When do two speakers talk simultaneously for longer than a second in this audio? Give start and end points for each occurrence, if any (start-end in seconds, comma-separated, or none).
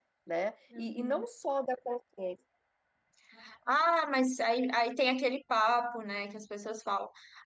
none